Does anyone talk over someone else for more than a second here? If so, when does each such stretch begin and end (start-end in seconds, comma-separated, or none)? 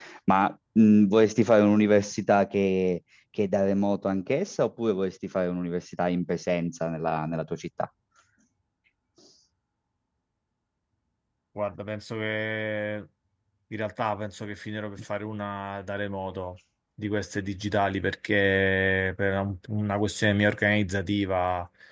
none